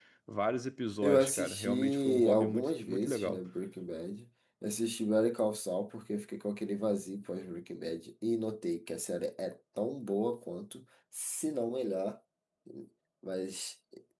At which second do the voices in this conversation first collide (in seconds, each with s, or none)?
1.0 s